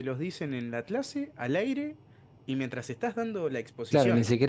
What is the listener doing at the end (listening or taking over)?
taking over